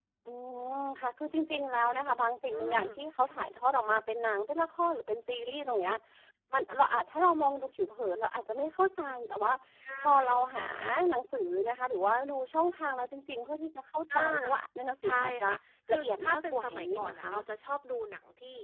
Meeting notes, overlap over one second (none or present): present